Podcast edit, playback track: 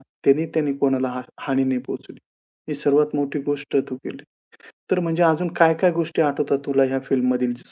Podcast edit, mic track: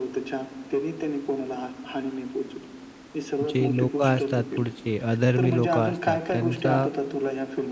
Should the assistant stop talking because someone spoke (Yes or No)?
Yes